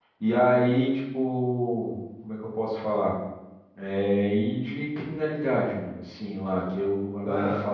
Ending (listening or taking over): listening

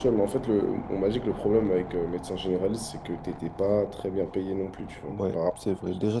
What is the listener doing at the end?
taking over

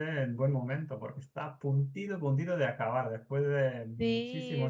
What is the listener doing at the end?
taking over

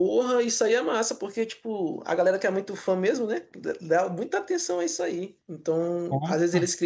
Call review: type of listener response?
listening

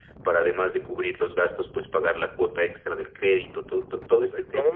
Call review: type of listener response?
taking over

